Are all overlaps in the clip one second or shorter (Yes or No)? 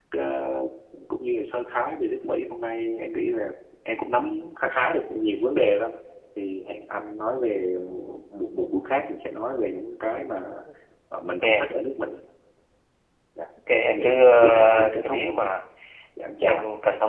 No